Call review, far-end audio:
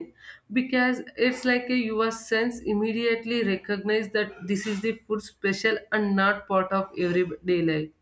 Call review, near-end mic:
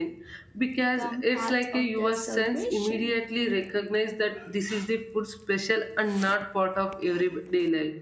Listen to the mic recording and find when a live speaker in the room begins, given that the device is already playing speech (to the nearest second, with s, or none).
1 s